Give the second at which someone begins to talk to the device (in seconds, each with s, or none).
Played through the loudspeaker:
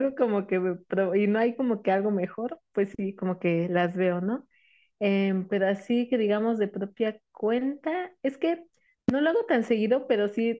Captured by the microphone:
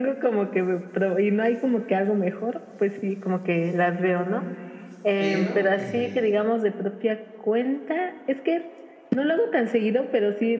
5.1 s